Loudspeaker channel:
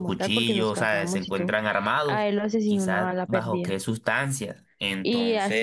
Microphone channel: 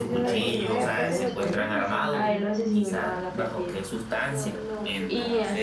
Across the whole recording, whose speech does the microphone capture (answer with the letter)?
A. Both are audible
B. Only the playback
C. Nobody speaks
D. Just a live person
A